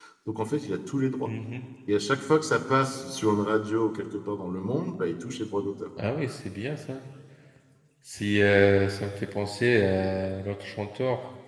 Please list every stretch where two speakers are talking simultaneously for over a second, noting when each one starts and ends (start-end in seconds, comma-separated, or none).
none